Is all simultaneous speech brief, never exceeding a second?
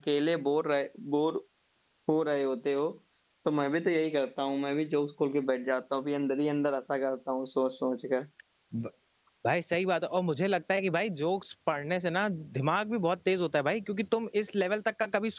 Yes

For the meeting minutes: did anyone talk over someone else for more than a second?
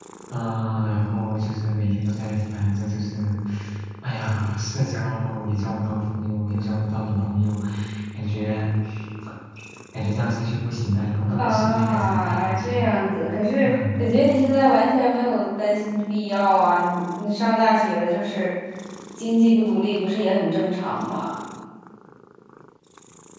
Yes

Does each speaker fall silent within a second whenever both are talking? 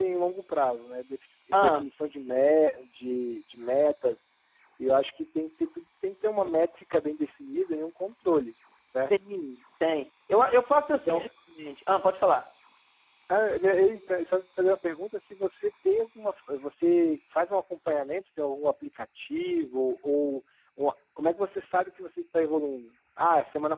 Yes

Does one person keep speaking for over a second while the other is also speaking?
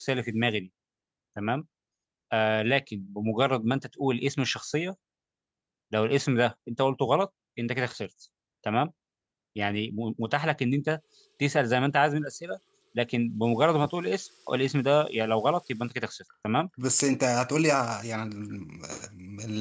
No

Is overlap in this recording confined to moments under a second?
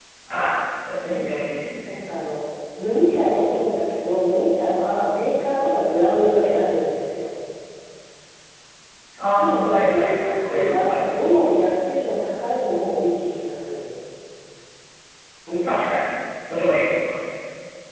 No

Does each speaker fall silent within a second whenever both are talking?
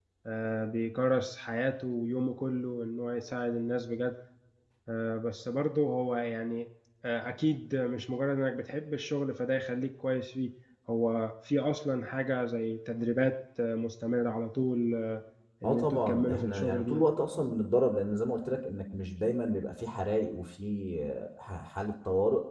No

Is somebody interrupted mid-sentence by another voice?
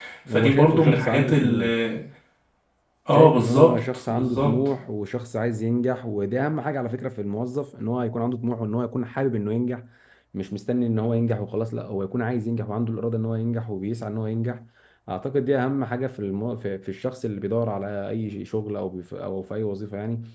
Yes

